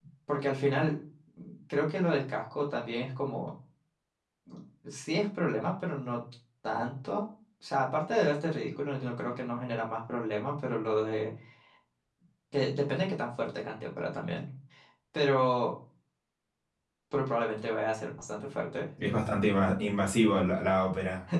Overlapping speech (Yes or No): No